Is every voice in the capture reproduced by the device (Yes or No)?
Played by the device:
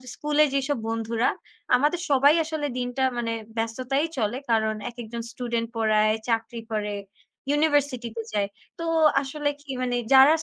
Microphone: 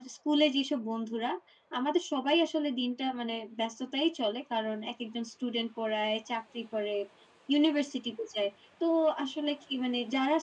Yes